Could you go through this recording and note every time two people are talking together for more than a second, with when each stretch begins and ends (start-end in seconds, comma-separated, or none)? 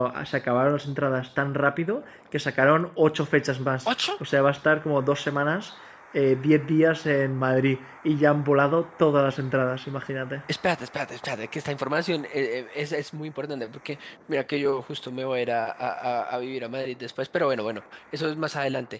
none